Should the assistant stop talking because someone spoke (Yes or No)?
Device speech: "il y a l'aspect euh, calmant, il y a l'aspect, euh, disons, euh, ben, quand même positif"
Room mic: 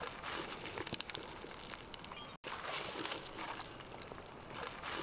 No